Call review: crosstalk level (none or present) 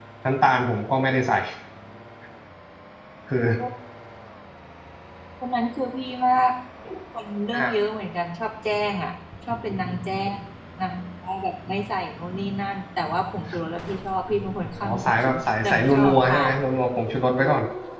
present